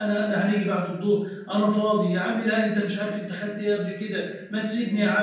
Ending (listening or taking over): listening